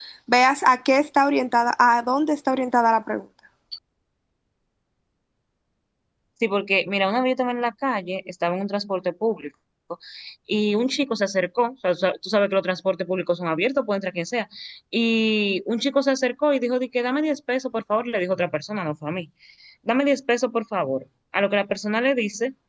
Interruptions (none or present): none